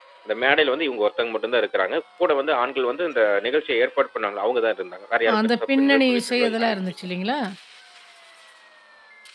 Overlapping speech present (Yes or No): Yes